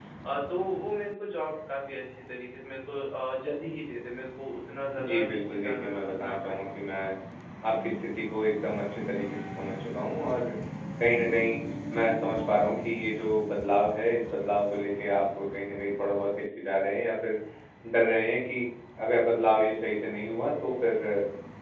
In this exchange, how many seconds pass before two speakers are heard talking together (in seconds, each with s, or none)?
5.0 s